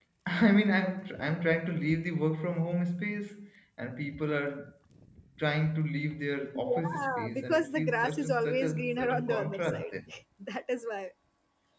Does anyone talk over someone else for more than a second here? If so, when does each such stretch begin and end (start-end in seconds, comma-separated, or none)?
6.5-9.9